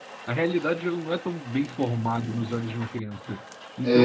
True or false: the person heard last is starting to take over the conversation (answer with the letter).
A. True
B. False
B